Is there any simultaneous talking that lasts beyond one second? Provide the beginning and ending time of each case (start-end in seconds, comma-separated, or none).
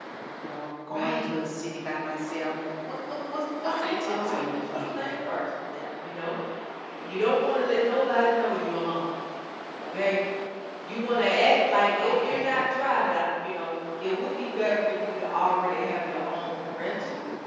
3.6-5.0